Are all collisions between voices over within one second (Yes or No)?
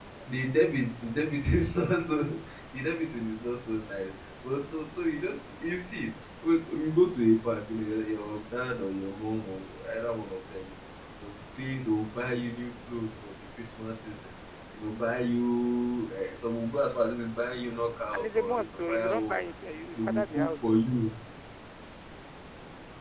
No